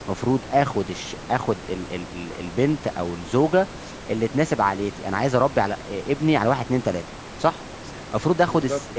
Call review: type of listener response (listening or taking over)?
listening